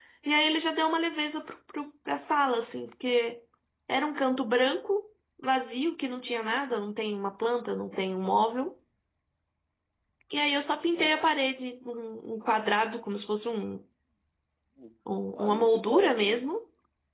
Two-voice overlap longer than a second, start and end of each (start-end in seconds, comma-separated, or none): 15.3-16.6